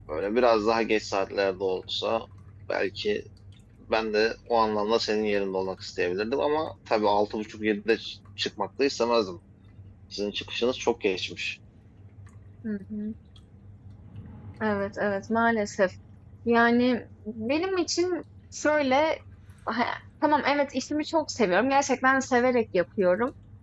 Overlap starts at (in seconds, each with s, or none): none